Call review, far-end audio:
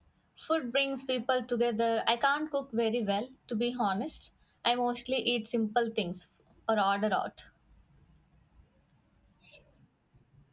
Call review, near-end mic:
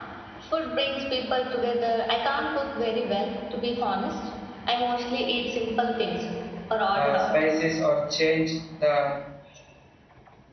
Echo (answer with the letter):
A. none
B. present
B